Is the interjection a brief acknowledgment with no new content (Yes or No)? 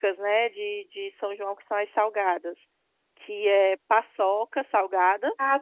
No